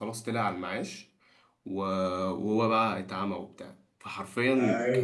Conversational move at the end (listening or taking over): taking over